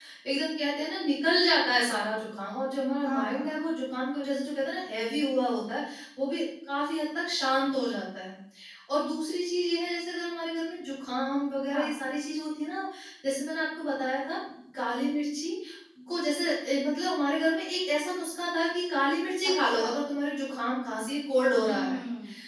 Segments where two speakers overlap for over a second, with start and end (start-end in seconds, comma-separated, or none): none